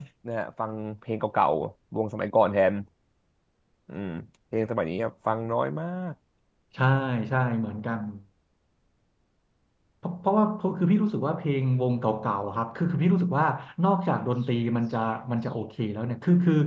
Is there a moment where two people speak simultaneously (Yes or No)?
No